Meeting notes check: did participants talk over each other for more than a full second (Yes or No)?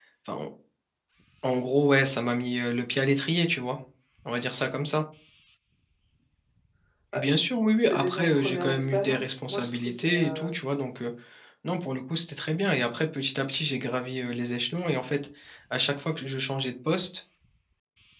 Yes